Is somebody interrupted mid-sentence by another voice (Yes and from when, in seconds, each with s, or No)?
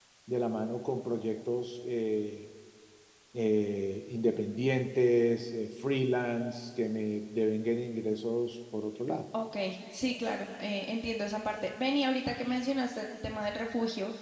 No